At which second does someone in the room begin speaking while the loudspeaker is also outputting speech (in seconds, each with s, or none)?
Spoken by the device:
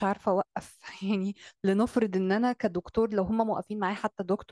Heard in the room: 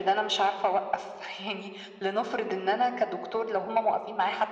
none